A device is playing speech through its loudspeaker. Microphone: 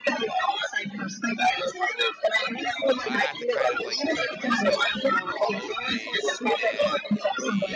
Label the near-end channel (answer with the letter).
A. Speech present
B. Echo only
A